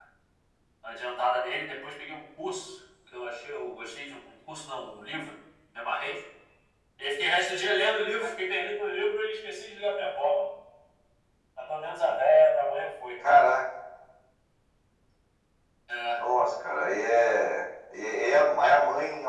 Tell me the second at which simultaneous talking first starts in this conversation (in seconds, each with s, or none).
none